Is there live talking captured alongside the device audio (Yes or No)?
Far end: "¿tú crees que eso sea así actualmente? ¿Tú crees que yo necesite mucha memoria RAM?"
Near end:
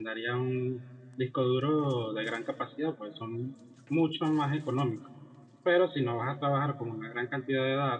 Yes